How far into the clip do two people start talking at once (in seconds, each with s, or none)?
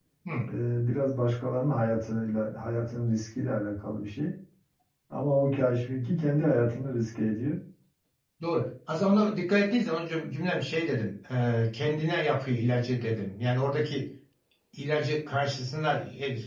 none